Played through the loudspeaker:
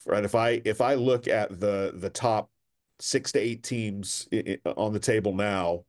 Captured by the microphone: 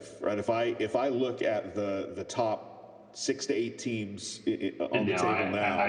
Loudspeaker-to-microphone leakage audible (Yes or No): Yes